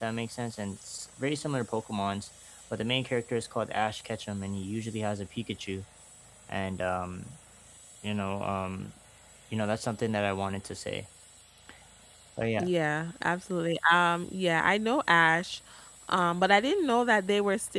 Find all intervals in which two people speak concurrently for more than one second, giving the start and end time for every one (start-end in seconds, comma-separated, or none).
none